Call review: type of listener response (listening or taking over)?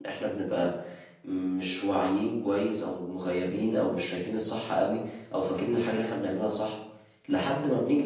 listening